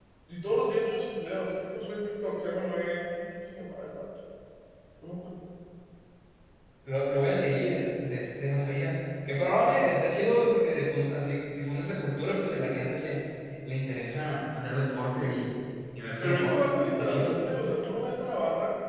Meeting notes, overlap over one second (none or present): present